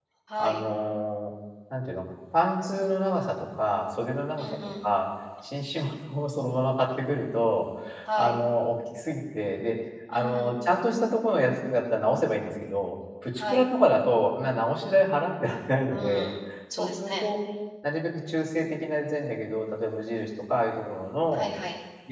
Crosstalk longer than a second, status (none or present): none